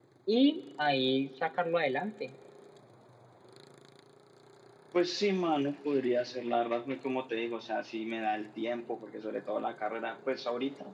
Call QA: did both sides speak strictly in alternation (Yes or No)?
Yes